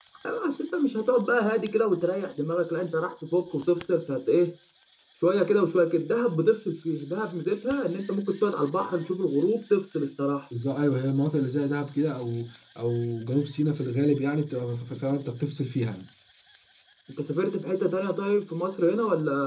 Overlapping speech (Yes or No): No